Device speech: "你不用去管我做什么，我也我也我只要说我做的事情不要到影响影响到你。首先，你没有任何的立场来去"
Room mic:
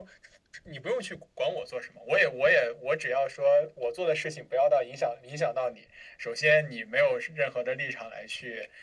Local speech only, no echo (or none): none